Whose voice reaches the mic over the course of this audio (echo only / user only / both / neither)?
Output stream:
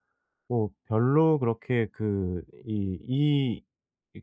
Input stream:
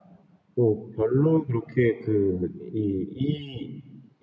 echo only